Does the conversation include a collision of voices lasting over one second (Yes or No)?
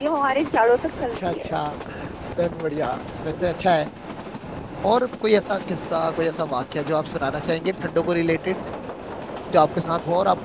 No